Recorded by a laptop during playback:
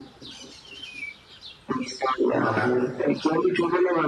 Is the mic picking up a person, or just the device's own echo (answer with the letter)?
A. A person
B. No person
A